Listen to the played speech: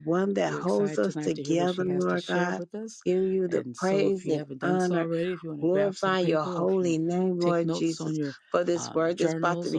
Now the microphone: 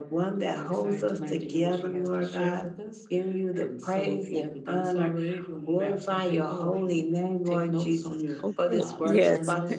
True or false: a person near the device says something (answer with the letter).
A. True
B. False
A